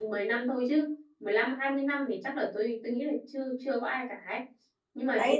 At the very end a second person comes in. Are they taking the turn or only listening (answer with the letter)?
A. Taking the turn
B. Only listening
A